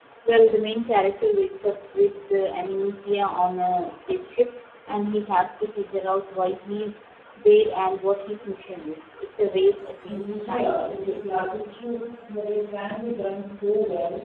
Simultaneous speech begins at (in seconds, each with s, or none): 10.1 s